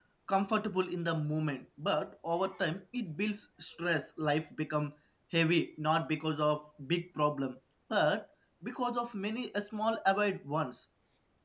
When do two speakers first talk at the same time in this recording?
none

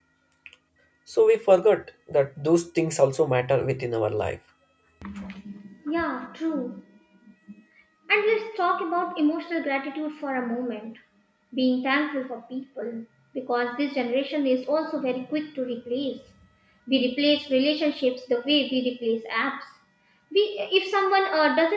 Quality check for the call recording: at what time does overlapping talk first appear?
none

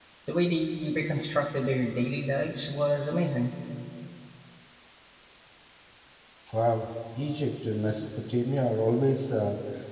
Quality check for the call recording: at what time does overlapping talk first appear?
none

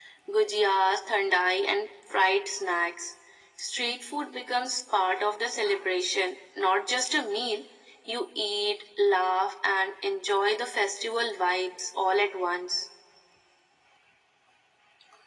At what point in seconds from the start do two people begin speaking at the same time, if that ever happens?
none

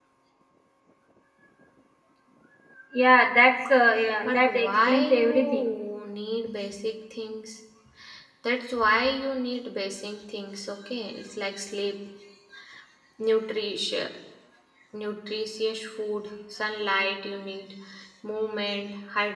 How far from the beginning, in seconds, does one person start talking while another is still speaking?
4 s

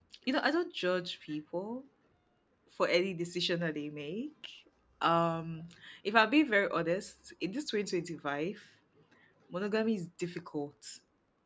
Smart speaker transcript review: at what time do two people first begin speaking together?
none

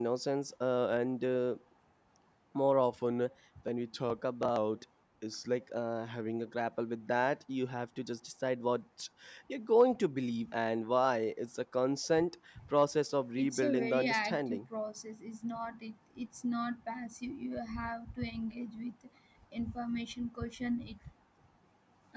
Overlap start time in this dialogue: 13 s

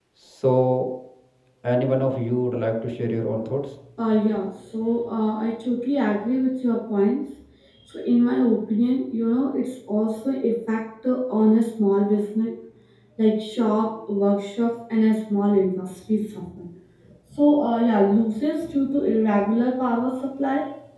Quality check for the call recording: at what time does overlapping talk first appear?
none

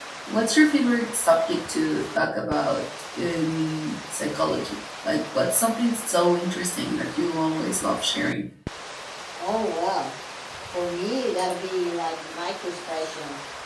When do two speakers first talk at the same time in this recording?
none

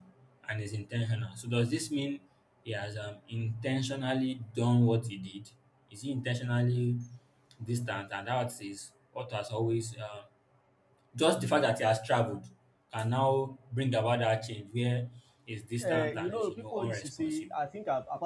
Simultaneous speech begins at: 16 s

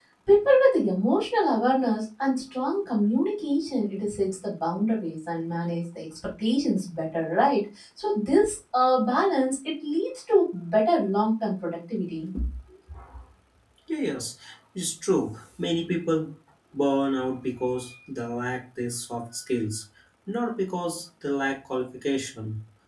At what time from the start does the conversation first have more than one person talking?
none

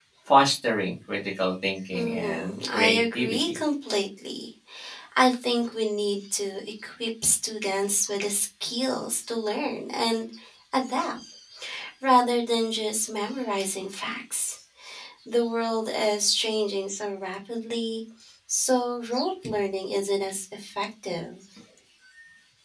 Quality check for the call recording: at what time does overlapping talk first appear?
2 s

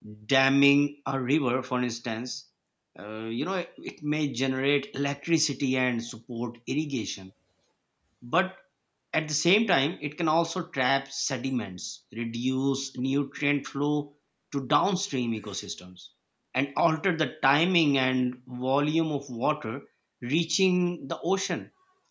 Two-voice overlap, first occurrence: none

